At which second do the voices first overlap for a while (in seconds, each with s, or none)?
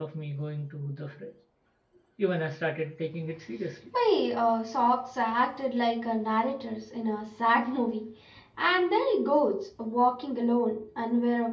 none